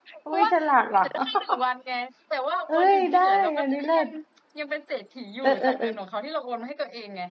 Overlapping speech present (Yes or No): Yes